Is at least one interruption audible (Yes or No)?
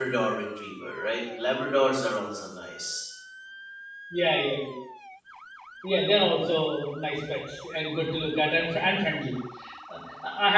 No